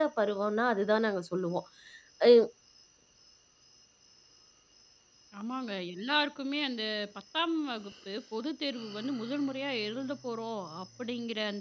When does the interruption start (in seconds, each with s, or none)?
none